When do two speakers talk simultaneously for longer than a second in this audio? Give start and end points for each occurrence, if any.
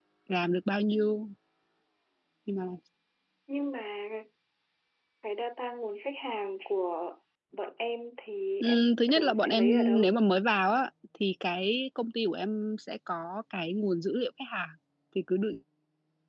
8.6-10.1

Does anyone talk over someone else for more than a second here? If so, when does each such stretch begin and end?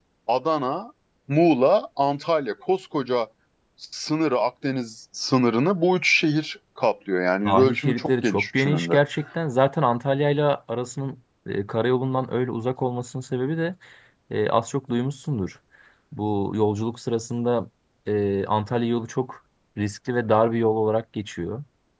7.5-9.0

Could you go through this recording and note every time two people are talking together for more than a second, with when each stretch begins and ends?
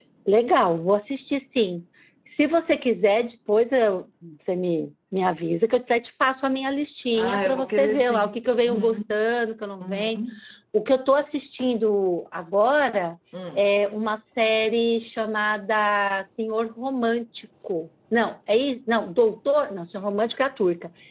7.1-9.0

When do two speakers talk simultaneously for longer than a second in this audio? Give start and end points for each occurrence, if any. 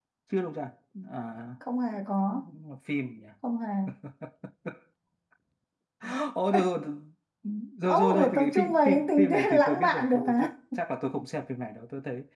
7.9-10.5

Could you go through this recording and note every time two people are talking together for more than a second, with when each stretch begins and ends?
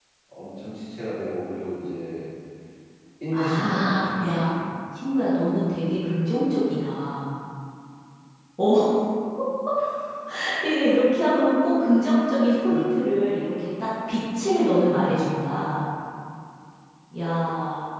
3.3-4.5

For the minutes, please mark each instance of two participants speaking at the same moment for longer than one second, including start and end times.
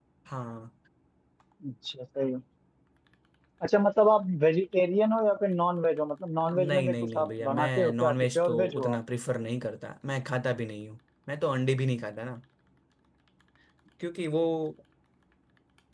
6.5-9.0

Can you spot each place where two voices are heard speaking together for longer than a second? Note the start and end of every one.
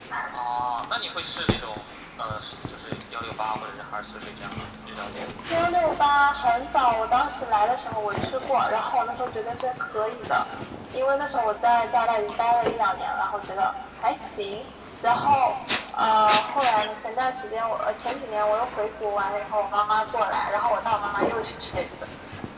none

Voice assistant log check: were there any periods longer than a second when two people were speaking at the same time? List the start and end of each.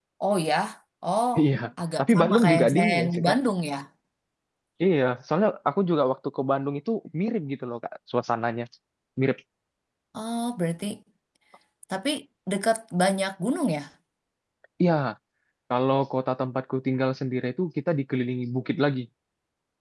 2.0-3.4

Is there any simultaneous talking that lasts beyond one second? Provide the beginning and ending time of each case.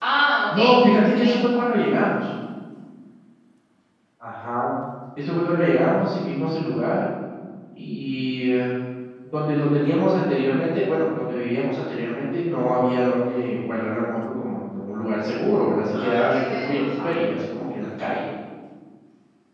15.9-17.2

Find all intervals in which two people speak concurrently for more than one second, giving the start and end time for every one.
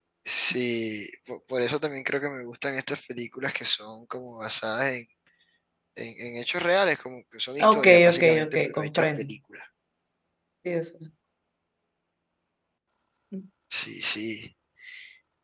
7.6-9.3

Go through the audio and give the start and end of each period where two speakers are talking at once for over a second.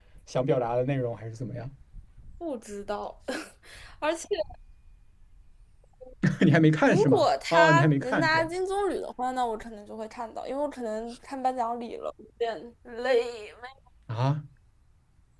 6.8-8.5

